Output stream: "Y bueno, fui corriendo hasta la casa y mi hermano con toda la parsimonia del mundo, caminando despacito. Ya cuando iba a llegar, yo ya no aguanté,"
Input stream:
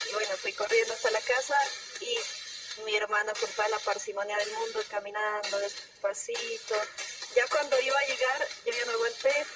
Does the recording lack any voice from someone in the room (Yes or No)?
Yes